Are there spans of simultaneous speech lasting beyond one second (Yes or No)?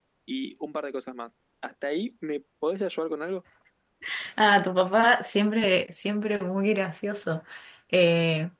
No